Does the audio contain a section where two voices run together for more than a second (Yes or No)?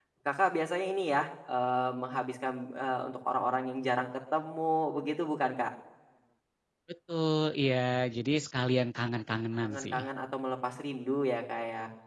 No